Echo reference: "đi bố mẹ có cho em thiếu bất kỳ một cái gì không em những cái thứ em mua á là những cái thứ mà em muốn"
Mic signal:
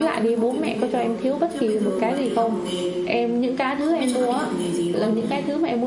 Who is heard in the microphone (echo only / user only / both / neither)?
both